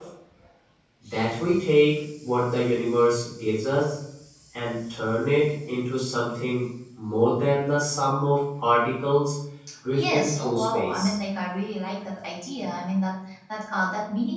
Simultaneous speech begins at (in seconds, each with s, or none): 9.9 s